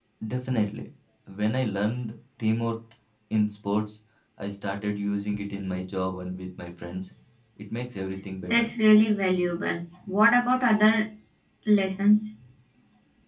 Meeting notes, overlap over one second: none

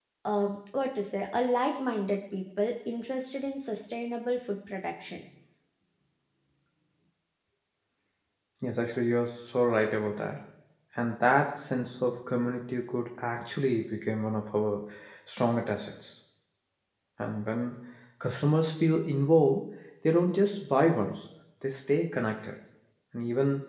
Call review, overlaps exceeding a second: none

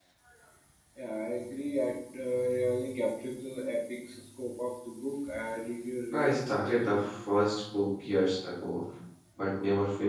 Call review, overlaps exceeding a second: present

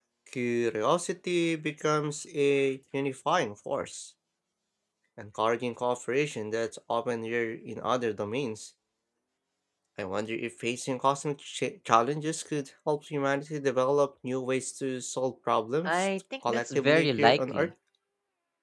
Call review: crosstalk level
present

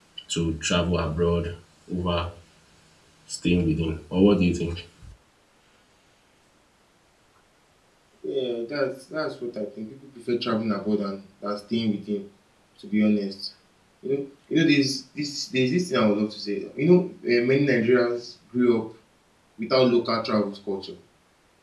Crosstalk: none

